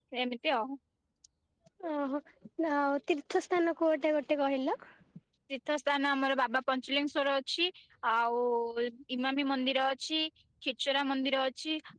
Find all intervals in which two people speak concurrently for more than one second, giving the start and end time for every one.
none

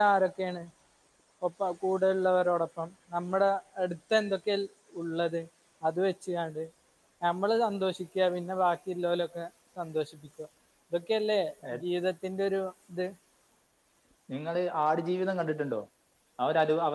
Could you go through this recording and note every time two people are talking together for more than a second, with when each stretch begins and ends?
none

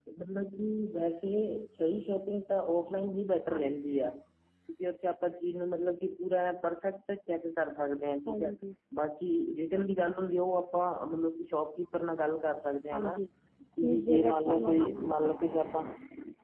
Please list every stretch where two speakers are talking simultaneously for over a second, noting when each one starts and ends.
13.8-15.3

